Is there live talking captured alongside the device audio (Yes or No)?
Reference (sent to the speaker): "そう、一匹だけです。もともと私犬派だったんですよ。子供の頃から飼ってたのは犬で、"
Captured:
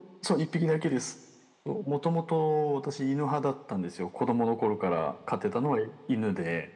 No